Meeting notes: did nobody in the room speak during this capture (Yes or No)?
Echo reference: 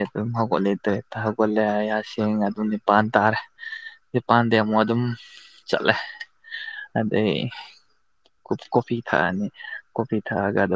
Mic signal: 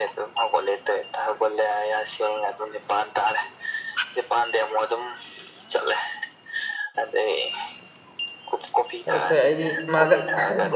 No